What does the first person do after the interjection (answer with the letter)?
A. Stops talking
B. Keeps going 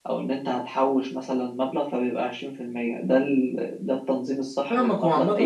A